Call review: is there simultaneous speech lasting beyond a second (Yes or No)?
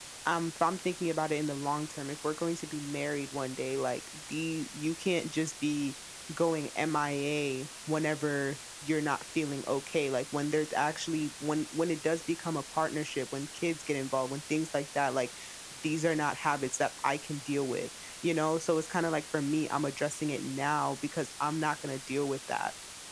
No